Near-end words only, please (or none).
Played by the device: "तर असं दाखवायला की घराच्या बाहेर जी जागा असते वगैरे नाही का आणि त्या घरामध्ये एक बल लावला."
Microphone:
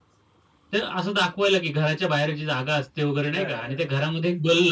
घर